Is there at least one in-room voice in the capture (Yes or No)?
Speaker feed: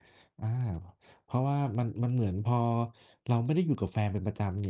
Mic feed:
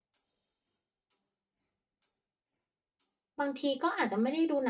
Yes